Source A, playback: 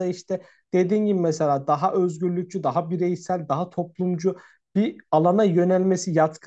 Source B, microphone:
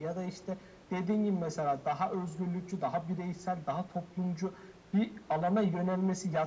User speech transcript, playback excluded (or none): none